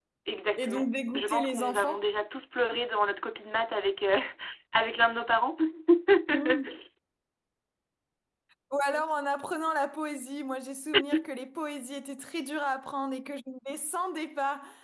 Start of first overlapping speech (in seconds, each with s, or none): 0.6 s